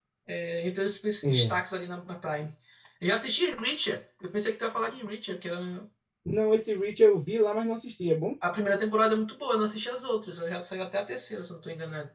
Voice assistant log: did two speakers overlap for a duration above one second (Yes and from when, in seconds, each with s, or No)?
No